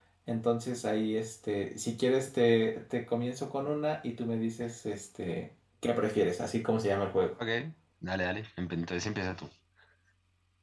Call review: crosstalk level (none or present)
none